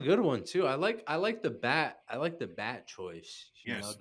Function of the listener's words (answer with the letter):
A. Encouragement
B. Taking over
B